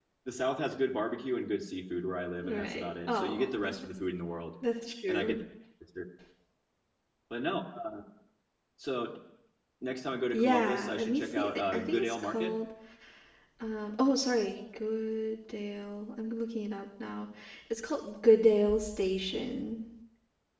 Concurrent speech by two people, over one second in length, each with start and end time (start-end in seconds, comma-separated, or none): 2.4-3.8, 10.3-12.5